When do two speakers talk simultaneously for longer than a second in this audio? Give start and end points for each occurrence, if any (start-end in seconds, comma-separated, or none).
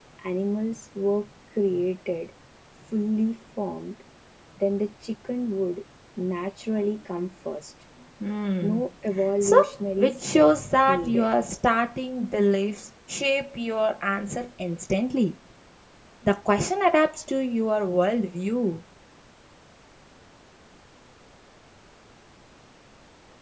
10.0-11.2